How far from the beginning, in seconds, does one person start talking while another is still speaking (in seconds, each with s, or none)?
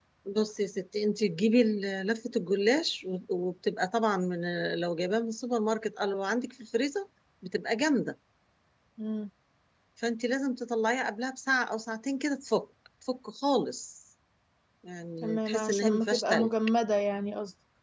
15.2 s